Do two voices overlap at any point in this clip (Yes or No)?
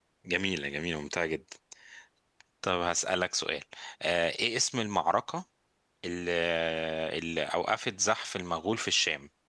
No